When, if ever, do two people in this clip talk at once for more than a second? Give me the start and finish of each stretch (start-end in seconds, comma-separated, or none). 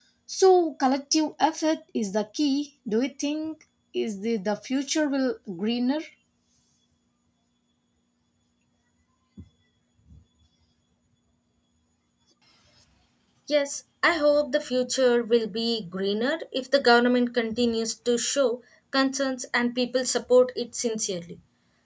none